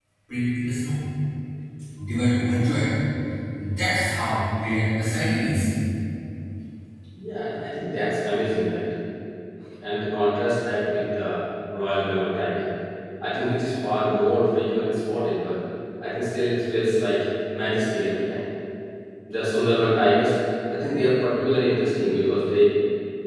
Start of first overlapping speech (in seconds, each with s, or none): none